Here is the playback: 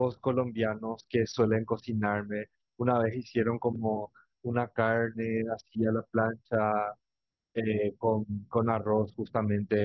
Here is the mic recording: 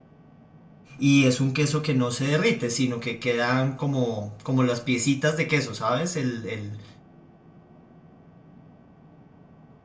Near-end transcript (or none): y es un queso que no se derrite, sino que quedan como, como las piecitas de queso, ¿sabes? El, el,